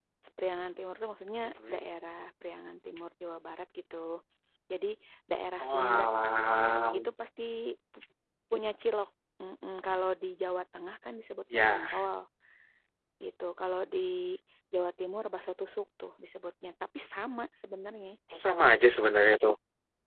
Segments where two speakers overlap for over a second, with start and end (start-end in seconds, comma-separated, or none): none